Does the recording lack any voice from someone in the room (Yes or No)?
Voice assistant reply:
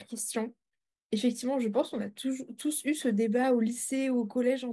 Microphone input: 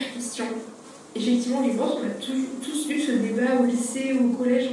Yes